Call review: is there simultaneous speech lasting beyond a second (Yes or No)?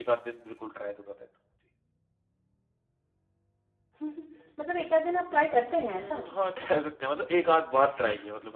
No